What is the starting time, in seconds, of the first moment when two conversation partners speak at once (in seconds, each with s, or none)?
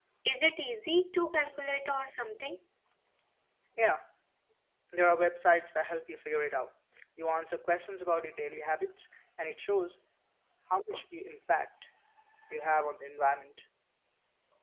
none